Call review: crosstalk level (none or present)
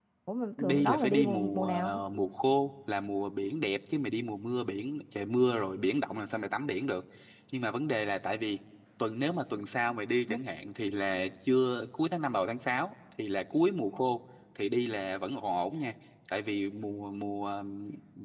present